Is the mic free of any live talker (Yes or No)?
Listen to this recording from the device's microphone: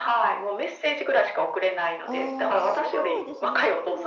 No